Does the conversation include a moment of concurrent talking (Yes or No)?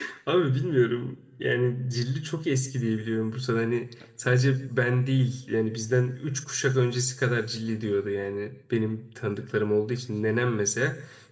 No